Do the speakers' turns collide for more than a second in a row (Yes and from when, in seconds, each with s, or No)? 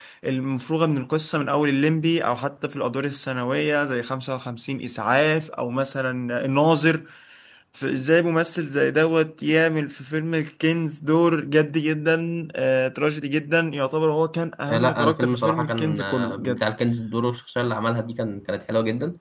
Yes, from 14.7 s